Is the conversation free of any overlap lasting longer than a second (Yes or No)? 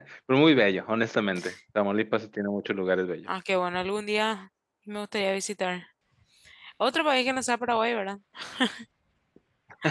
Yes